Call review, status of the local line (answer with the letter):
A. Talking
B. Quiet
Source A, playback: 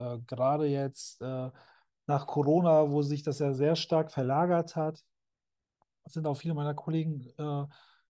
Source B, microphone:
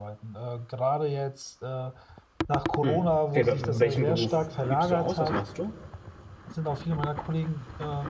A